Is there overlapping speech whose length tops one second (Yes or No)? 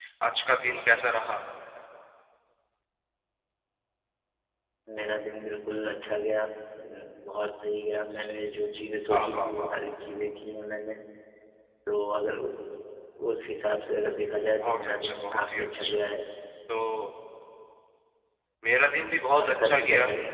Yes